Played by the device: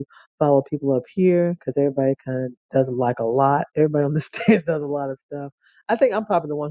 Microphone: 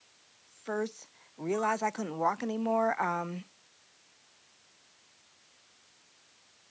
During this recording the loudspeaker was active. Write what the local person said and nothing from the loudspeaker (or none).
first realized i couldn't walk anymore um